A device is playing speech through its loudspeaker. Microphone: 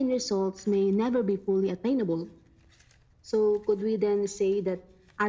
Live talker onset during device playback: none

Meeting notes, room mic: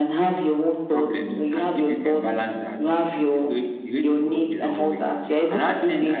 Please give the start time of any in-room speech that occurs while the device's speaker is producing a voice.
0.9 s

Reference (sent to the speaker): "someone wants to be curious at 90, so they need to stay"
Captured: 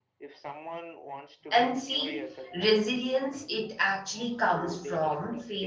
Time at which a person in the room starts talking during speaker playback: 1.5 s

